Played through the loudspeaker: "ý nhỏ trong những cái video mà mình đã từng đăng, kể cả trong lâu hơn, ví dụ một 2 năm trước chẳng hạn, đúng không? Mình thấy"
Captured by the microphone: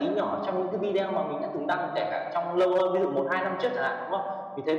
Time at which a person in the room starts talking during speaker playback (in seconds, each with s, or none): none